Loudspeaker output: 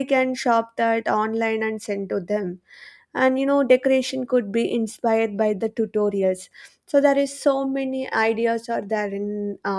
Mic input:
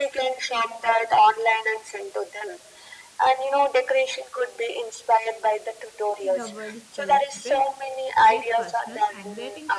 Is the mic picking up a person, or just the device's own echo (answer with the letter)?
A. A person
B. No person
A